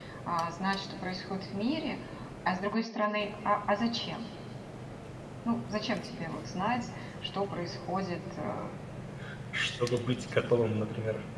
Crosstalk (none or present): none